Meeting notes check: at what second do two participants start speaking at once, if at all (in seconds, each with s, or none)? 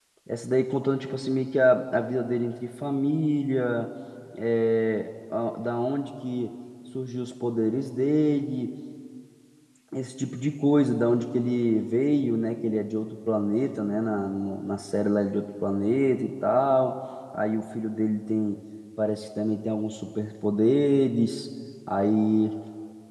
none